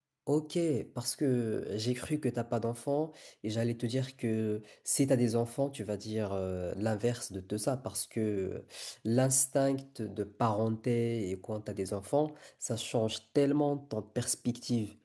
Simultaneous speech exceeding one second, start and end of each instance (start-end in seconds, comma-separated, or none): none